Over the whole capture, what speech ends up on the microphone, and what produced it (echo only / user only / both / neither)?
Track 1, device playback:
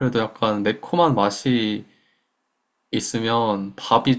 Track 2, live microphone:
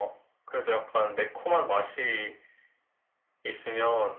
echo only